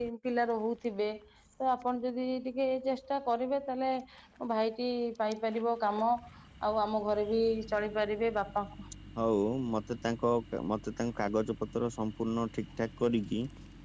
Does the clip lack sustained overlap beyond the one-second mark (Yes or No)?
Yes